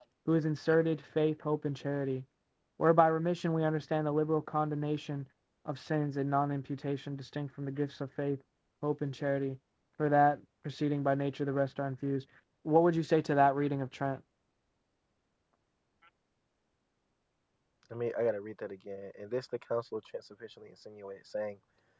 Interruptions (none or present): none